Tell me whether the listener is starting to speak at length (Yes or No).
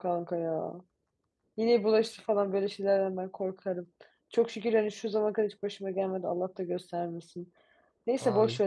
No